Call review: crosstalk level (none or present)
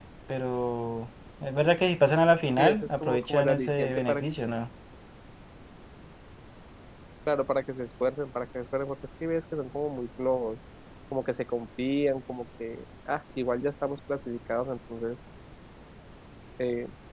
present